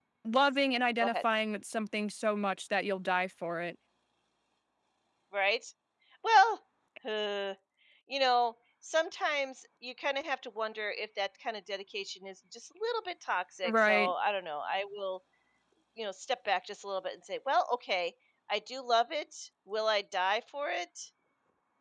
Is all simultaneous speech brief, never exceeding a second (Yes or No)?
Yes